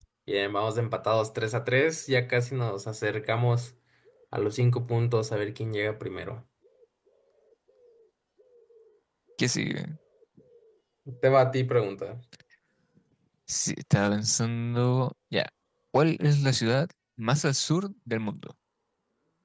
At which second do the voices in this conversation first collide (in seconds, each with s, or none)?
none